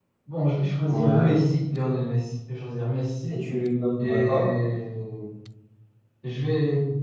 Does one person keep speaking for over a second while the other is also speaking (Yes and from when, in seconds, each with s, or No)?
No